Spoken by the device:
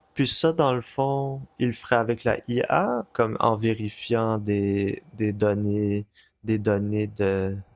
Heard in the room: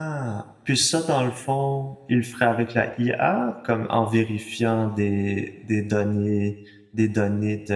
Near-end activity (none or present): none